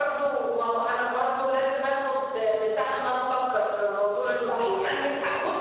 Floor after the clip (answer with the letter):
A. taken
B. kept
A